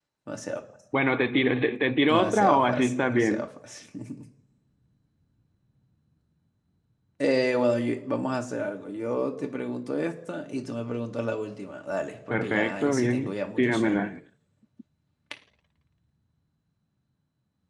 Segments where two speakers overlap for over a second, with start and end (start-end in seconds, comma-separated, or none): 2.1-3.5, 12.3-14.0